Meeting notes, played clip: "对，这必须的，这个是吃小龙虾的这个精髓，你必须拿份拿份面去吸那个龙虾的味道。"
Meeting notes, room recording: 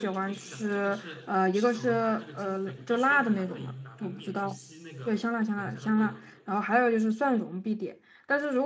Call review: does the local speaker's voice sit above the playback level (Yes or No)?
Yes